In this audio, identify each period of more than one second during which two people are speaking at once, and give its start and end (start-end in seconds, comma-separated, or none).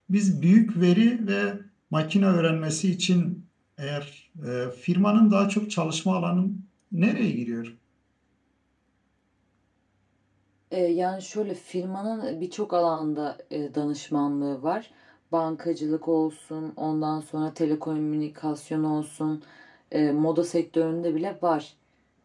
none